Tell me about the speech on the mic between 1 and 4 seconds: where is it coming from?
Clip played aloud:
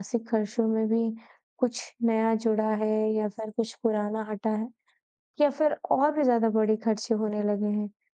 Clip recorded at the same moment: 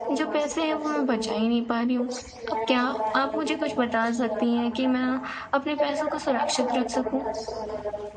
both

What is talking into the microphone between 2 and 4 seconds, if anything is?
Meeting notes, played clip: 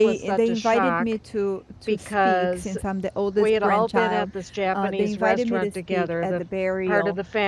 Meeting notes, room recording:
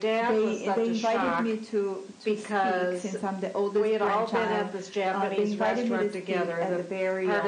echo only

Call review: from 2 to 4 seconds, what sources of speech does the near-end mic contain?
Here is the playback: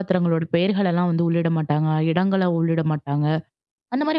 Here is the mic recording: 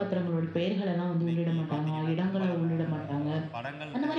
both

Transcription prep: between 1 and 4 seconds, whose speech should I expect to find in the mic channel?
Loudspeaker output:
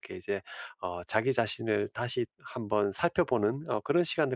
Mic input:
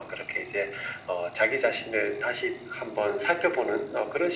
echo only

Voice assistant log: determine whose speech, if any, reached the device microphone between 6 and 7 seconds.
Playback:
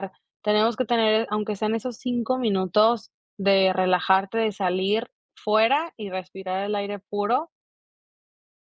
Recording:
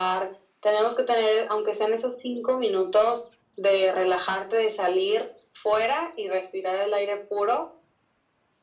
echo only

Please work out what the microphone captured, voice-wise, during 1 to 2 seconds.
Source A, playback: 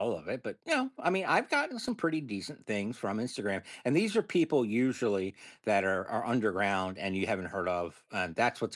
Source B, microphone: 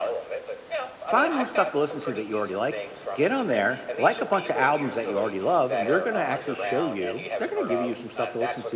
both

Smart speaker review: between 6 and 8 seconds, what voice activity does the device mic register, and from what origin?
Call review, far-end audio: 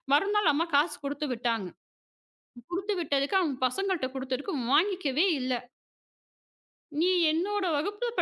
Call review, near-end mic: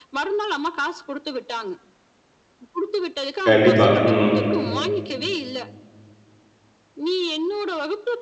echo only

